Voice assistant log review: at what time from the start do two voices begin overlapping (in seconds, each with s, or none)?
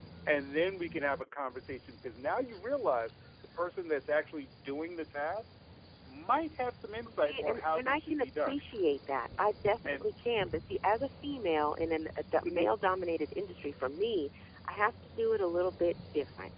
7.2 s